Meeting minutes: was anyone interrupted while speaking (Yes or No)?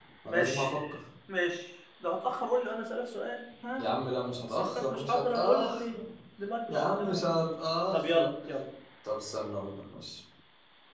Yes